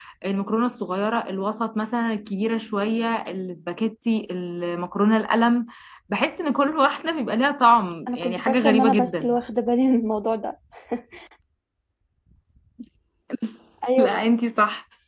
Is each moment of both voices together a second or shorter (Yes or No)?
No